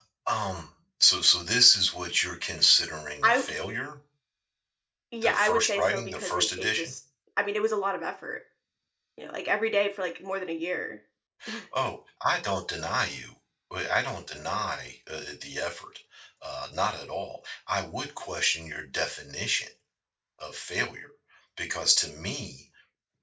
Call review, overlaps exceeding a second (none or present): present